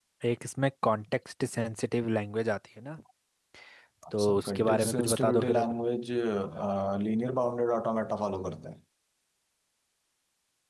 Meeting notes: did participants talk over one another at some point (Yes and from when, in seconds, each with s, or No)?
Yes, from 4.2 s